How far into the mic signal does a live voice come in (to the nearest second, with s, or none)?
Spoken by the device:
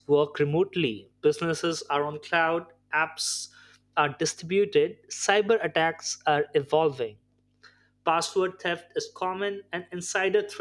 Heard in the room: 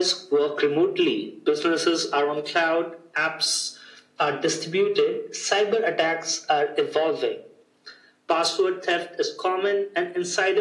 none